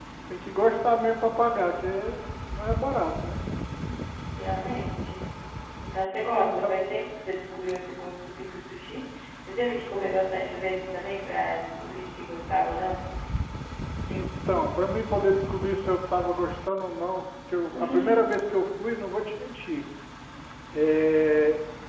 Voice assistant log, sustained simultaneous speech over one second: none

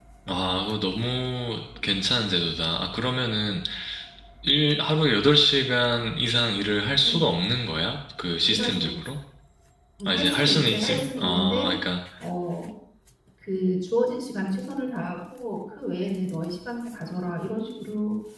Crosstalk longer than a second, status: present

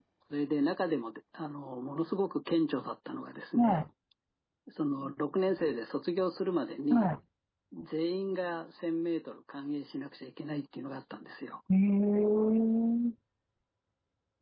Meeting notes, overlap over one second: none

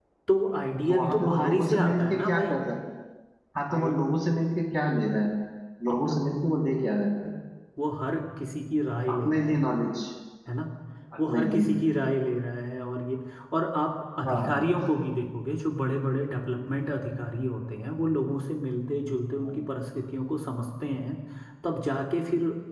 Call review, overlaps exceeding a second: present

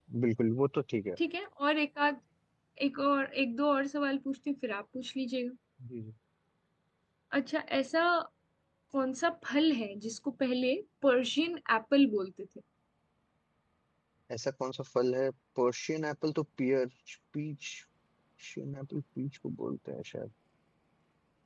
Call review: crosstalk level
none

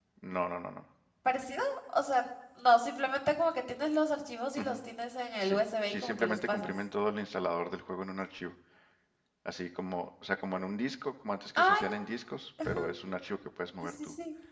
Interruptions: present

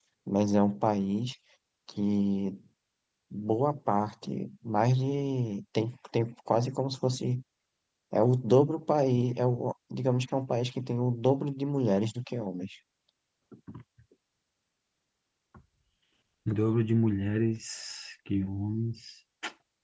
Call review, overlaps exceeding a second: none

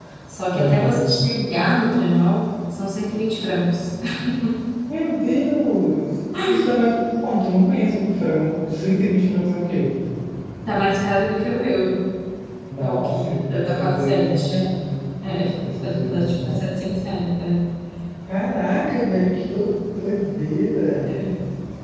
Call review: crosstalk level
present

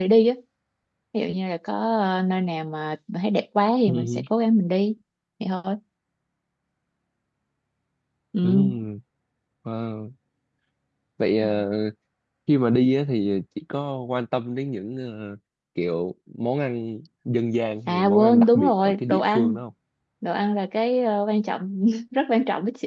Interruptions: present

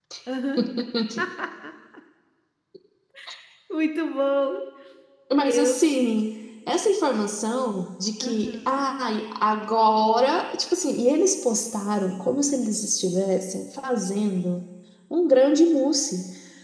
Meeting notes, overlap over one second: none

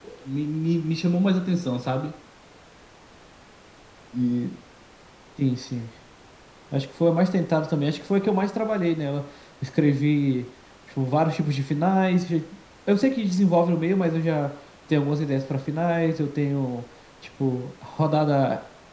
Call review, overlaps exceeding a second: none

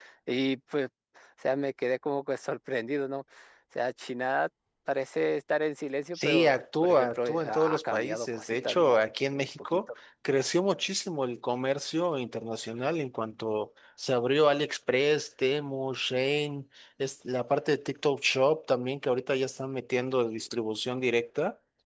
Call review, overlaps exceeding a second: present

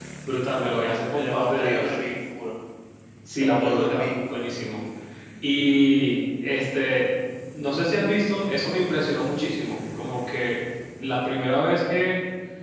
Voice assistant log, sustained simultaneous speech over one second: present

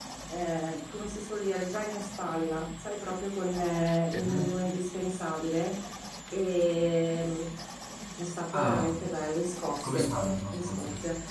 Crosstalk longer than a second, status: none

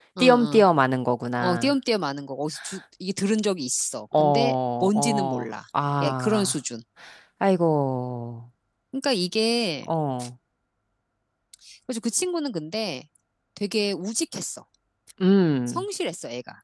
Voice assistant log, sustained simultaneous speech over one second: present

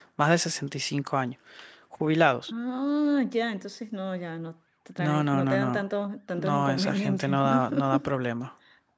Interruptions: present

